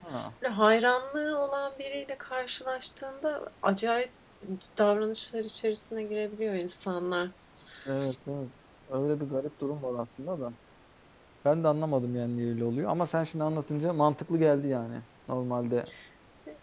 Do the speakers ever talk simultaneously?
No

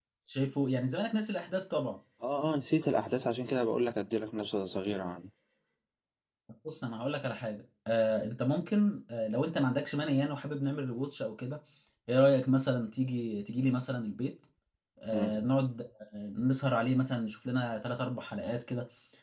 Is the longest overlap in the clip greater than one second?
No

